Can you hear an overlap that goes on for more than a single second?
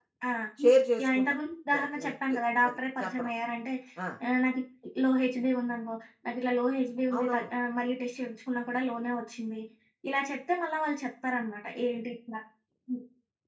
Yes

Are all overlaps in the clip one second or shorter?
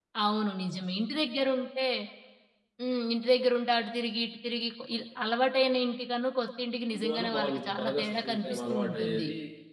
No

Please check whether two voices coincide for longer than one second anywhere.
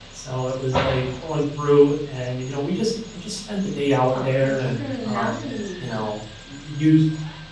Yes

